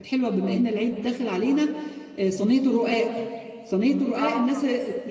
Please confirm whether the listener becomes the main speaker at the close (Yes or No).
No